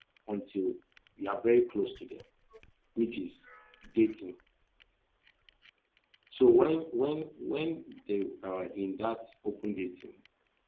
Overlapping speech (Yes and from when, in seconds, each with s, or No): No